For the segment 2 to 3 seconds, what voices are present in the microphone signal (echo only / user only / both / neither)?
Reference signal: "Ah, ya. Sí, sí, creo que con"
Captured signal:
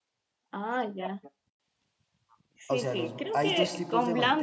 both